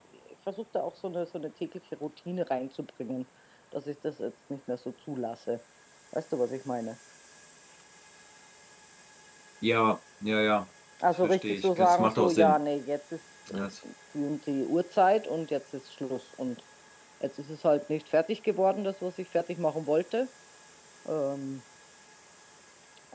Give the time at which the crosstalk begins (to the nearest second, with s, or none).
11 s